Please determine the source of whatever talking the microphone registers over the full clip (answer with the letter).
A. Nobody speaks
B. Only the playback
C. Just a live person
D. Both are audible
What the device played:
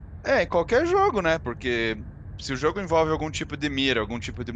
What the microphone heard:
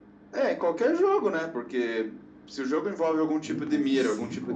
D